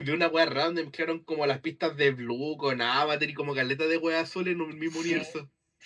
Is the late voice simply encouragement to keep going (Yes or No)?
No